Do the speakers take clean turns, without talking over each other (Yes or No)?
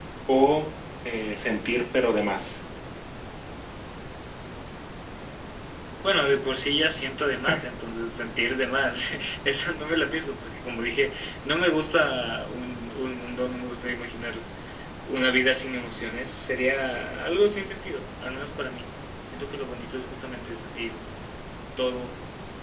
Yes